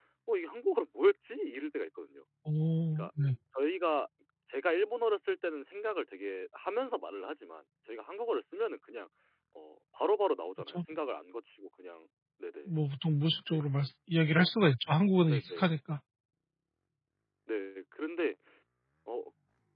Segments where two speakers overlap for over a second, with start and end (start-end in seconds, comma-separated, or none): none